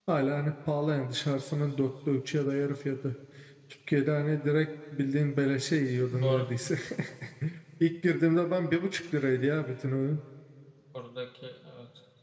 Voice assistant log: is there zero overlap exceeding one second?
Yes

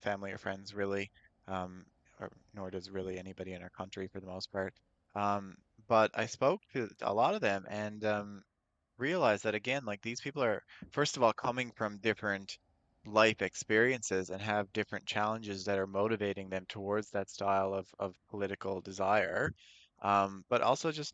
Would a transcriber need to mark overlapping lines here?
No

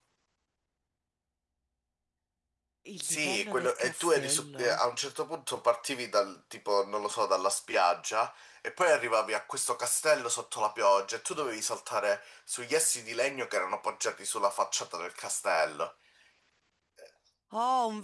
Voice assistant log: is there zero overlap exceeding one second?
No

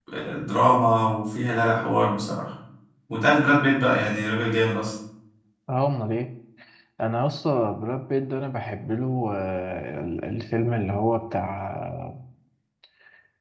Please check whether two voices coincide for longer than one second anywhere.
No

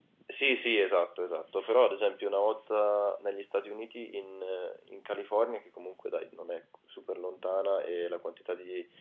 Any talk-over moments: No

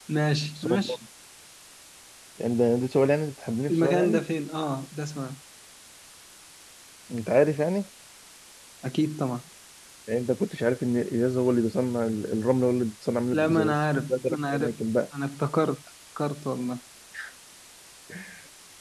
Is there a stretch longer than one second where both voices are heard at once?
Yes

